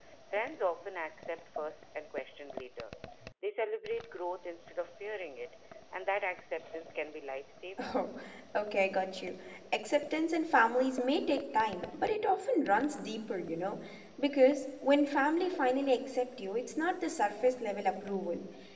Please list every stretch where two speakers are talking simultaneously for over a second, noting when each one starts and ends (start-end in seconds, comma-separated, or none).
none